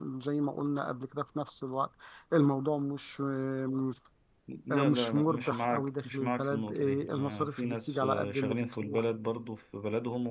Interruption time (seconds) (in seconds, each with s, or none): 4.7 s